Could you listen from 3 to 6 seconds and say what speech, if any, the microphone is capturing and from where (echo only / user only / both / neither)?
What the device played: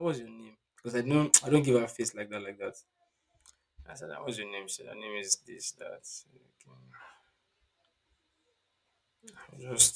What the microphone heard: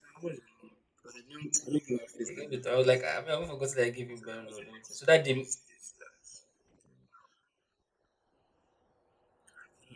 both